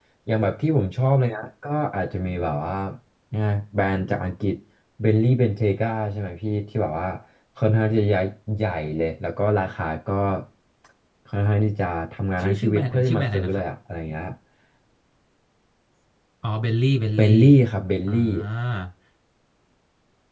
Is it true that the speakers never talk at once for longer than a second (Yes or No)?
No